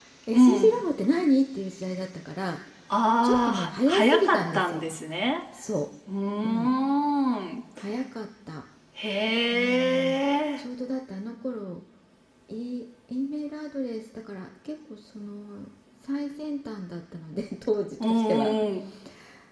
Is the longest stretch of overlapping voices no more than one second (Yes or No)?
No